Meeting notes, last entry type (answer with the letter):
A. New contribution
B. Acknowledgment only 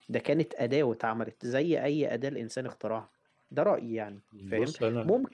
B